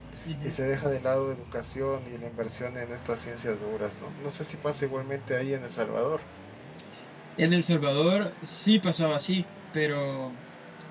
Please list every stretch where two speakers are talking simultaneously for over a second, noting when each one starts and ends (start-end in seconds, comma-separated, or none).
none